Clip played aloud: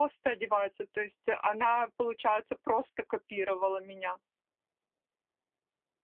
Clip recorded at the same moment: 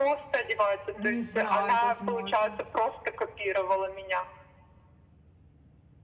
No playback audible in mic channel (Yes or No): No